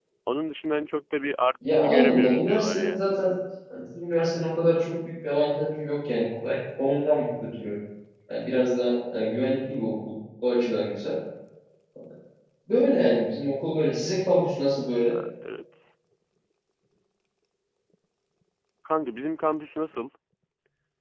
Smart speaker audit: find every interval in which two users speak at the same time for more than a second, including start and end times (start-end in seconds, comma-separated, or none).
1.6-3.0